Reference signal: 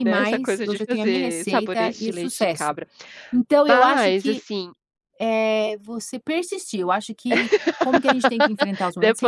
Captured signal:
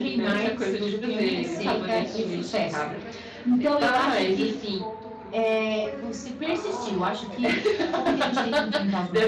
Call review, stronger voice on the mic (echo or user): echo